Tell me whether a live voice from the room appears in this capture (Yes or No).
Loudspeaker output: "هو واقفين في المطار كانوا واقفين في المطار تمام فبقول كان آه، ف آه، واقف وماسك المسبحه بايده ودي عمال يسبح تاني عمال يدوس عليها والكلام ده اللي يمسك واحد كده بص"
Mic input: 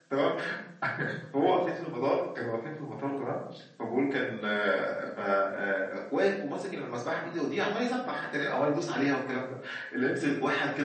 No